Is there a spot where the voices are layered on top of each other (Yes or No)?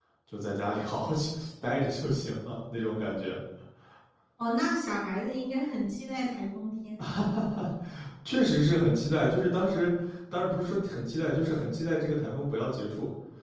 No